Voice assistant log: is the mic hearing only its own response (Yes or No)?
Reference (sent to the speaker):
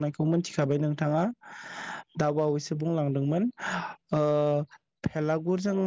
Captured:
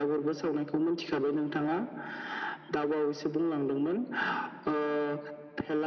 Yes